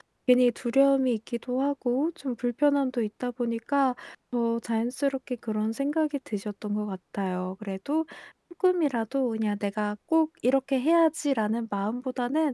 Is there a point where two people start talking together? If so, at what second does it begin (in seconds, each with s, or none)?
none